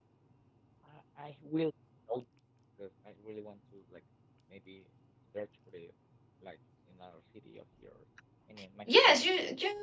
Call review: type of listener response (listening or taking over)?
taking over